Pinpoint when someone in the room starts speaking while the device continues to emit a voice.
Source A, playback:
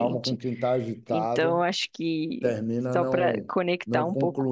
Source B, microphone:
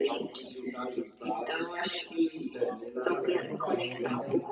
2.5 s

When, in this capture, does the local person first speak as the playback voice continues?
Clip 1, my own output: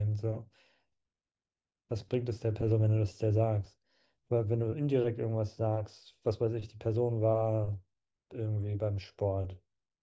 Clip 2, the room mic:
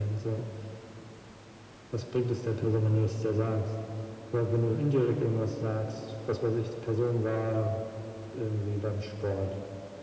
none

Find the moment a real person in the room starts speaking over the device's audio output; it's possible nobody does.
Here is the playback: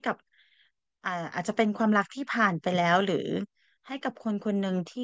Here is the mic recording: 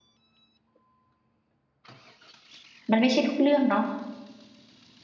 2.9 s

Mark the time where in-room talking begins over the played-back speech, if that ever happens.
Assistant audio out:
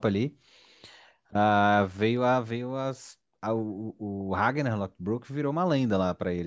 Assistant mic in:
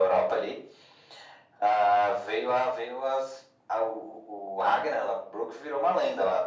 none

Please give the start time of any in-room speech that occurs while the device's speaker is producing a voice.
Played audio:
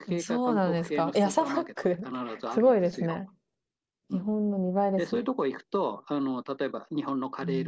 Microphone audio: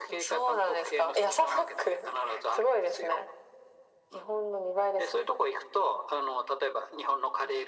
none

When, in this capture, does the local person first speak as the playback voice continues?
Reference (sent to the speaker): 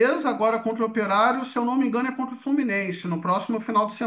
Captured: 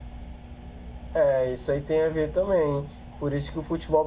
1.1 s

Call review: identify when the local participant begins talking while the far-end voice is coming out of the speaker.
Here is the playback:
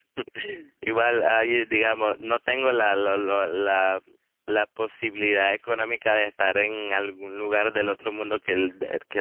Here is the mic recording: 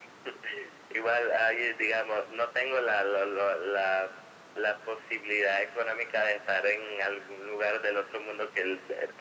none

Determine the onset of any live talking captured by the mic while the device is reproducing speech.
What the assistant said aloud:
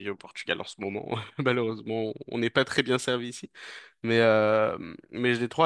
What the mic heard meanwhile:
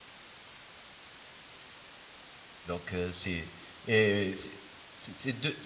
2.6 s

